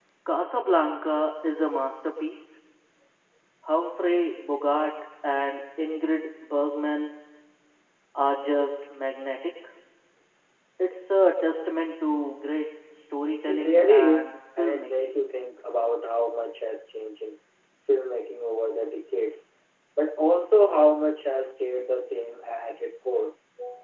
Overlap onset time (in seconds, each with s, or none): 13.5 s